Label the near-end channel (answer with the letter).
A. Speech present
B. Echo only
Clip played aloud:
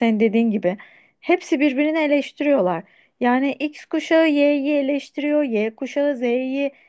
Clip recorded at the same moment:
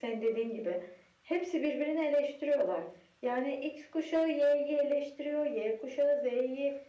B